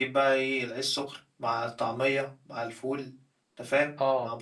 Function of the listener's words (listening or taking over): listening